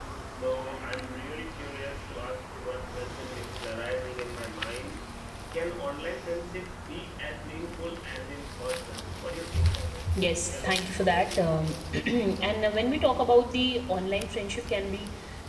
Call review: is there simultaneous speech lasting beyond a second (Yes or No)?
Yes